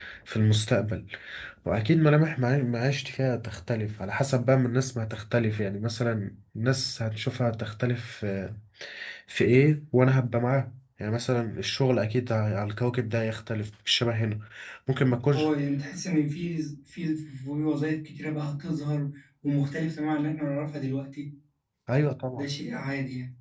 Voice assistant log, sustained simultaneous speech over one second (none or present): none